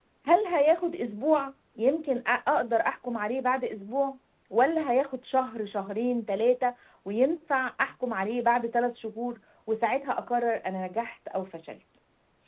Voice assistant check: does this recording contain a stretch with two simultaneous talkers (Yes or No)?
No